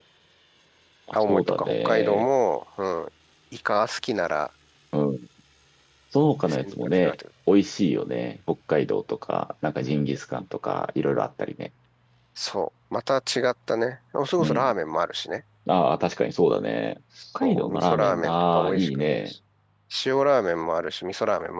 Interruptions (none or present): present